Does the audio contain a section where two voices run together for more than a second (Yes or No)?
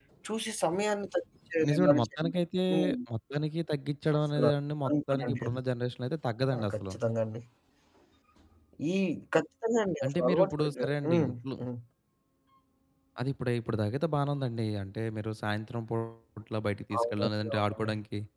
Yes